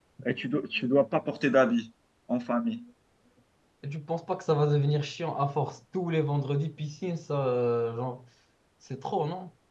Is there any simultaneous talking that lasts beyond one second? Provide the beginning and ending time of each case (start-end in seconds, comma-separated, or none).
none